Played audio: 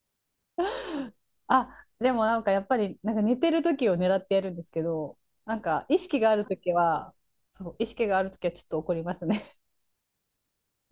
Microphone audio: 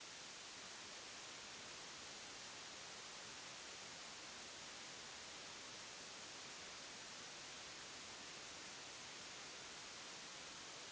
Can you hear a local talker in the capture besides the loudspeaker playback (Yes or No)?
No